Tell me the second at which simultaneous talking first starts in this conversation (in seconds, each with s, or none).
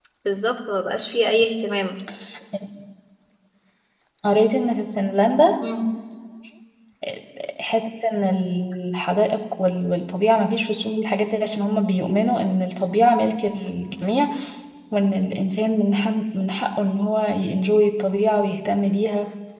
none